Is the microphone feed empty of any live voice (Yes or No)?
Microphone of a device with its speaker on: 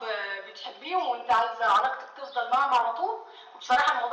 Yes